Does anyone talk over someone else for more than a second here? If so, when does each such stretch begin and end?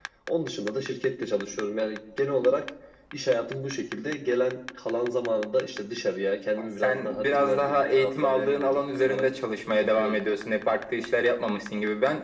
6.8-9.3

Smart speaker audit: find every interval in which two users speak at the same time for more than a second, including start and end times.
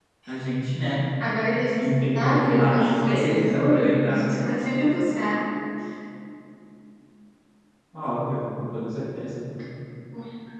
1.8-4.3

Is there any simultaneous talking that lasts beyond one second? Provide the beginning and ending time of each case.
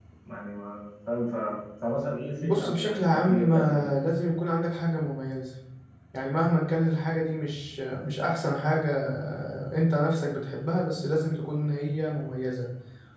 2.4-3.9

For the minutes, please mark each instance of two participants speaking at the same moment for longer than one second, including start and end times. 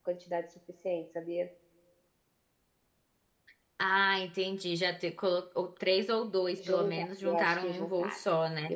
6.7-8.2

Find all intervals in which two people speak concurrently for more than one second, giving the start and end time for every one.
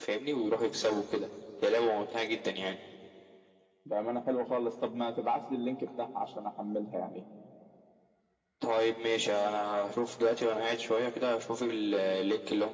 none

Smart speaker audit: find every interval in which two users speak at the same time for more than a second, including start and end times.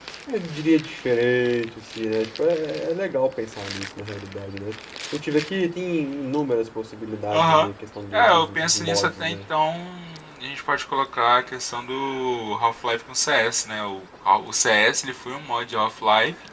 8.1-9.4

